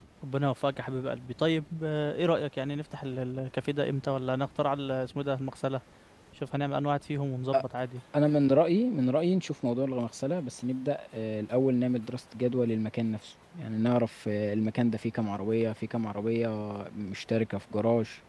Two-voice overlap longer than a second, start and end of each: none

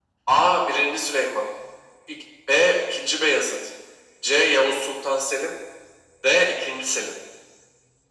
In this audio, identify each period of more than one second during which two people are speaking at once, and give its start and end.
none

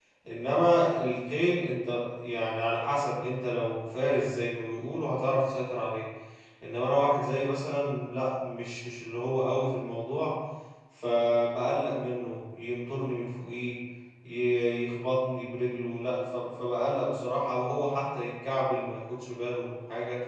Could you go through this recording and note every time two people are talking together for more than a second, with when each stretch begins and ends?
none

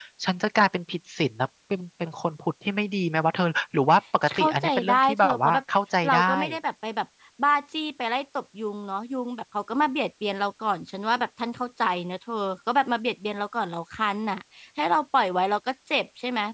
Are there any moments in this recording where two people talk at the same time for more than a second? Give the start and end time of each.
4.4-5.6

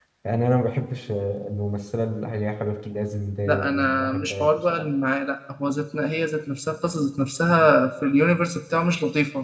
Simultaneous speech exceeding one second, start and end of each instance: 3.5-4.8

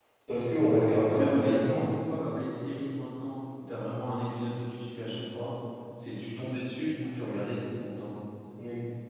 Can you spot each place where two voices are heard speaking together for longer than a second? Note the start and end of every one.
0.6-1.9

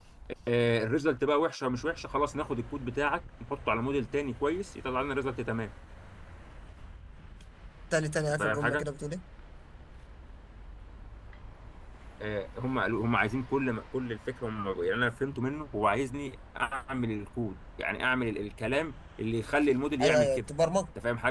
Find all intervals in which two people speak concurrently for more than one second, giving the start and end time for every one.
none

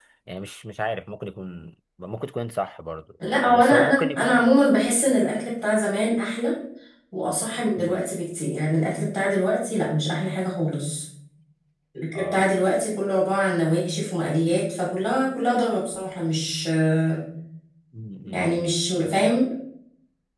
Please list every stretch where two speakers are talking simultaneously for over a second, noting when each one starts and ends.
3.3-4.5

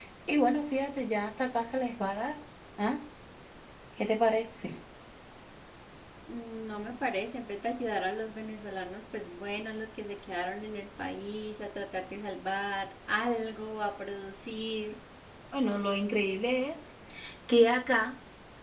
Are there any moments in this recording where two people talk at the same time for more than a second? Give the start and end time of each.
none

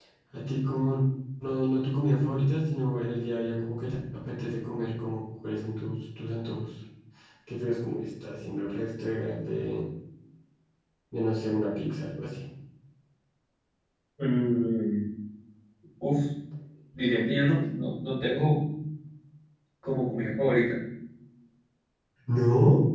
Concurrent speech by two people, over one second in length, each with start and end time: none

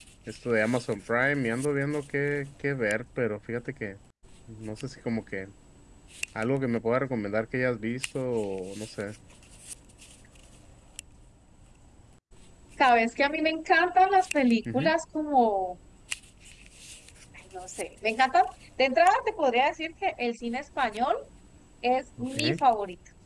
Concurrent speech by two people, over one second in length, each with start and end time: none

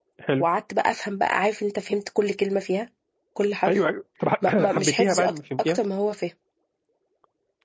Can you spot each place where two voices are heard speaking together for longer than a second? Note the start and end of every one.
4.5-5.8

